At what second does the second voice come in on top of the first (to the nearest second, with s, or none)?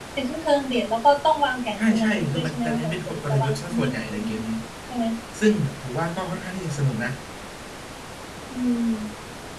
2 s